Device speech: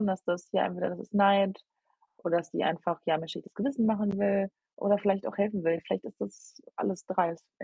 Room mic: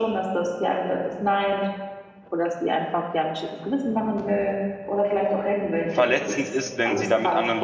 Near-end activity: present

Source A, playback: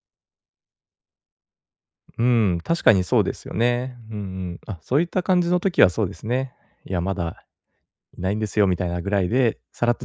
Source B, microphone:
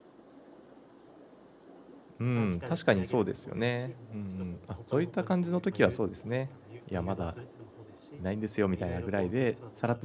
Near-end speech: present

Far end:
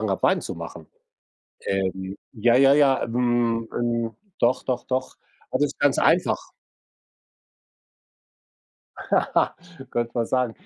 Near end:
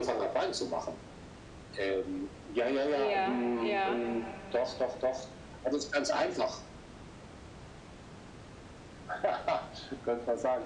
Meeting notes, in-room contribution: present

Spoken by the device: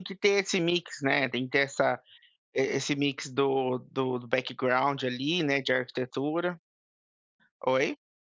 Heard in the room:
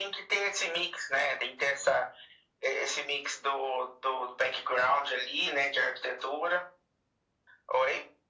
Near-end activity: none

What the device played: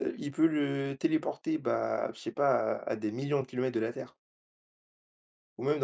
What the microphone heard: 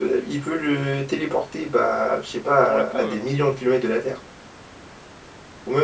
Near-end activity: present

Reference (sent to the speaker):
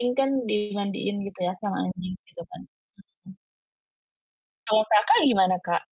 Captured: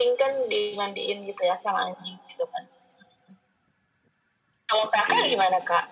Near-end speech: present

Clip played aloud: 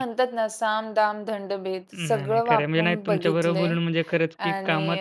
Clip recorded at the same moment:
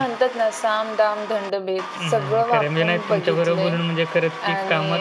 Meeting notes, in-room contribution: none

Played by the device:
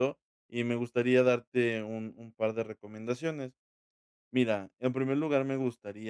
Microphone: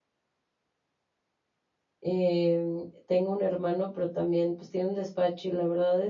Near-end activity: present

